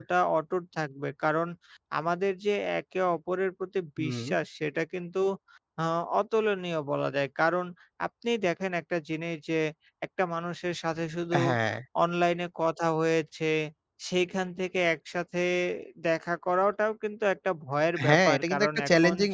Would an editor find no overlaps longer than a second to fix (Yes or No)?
No